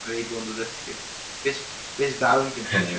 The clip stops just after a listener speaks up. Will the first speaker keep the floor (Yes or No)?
Yes